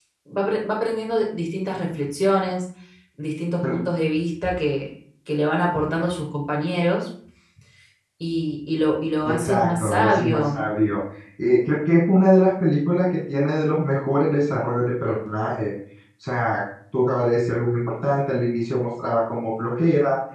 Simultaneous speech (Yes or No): Yes